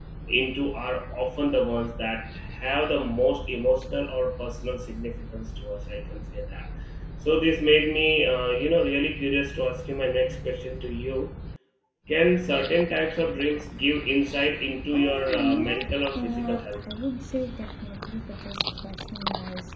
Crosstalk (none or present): present